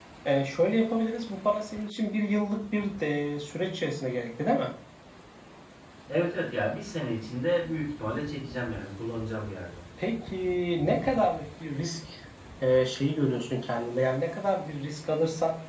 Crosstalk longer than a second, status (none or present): none